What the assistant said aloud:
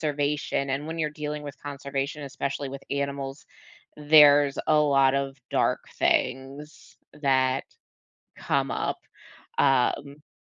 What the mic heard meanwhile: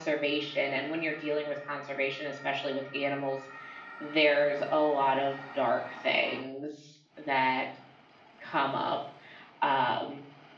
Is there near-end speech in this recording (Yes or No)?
No